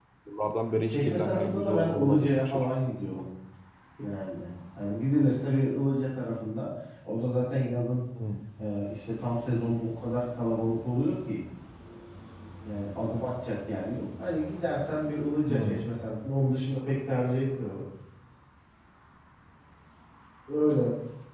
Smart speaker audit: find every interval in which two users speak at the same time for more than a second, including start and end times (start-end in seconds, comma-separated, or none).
0.9-2.6